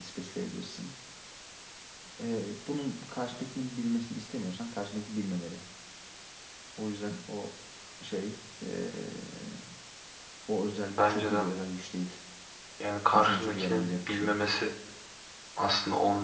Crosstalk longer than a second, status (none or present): present